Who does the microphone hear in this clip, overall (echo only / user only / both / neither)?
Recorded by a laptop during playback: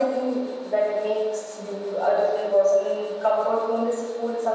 echo only